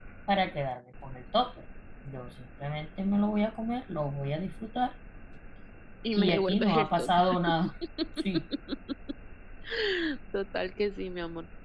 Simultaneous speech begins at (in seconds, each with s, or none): 6.2 s